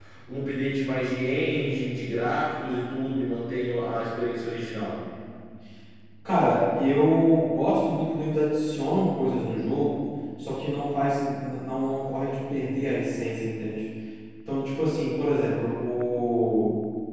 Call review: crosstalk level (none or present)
none